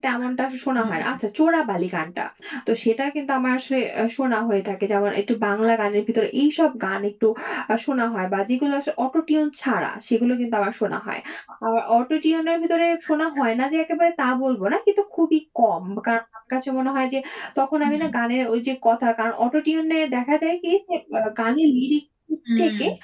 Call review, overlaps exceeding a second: none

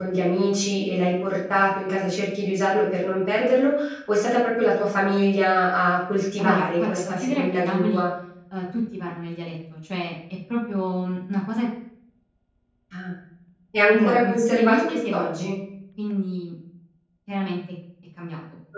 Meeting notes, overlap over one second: present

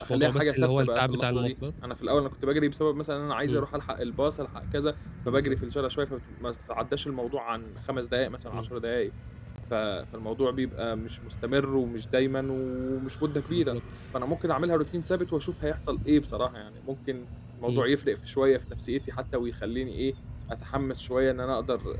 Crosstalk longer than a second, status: present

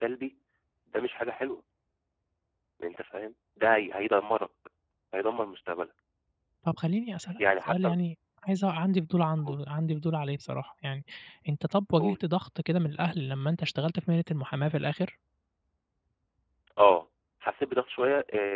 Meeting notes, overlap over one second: none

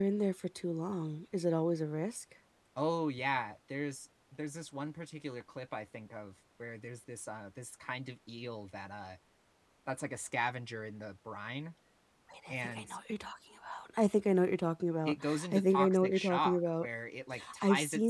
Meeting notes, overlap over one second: present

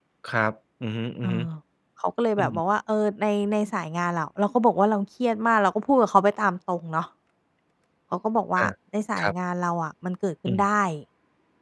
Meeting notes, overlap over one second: none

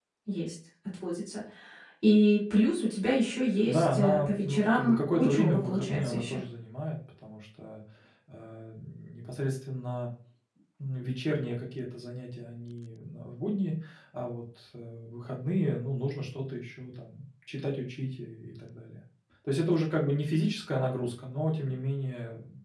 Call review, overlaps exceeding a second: present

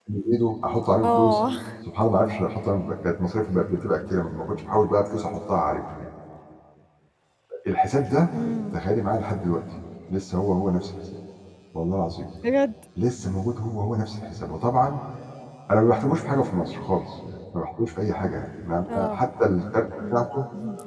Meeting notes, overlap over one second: none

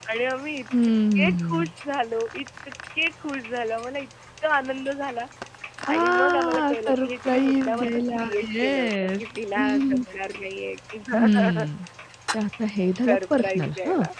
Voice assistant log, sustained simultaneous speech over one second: present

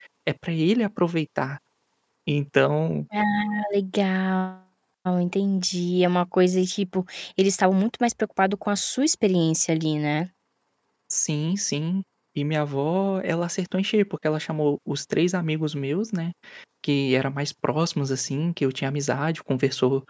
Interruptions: none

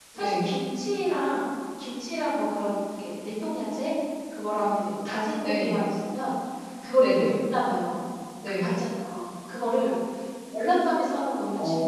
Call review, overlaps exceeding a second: none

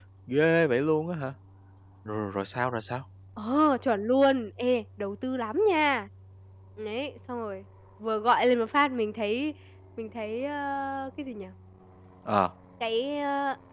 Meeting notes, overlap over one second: none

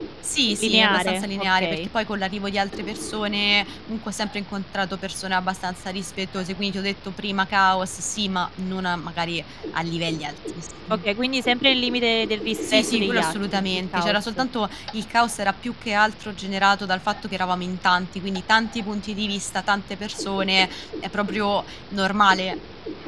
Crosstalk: present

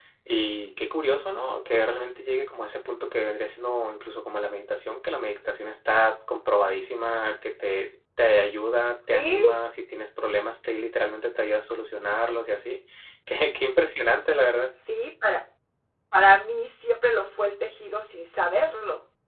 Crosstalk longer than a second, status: none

